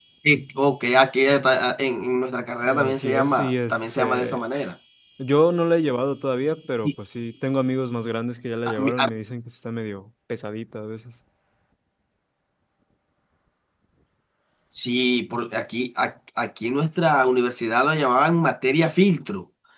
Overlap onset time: 2.6 s

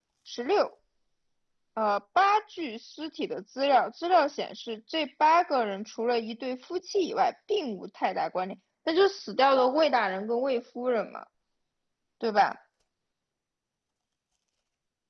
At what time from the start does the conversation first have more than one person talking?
none

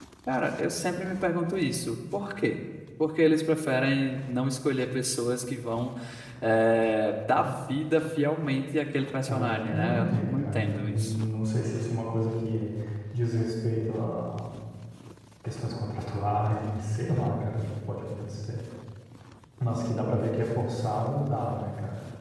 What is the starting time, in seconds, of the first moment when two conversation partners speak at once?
9.2 s

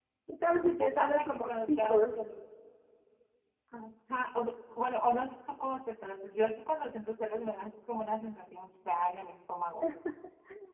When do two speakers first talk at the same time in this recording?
0.6 s

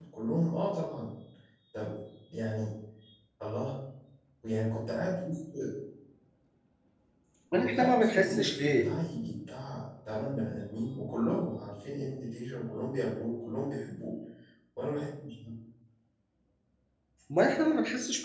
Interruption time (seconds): 7.6 s

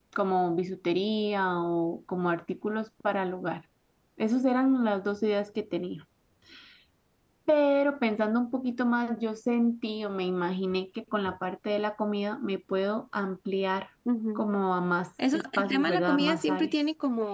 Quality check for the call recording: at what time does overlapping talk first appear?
15.3 s

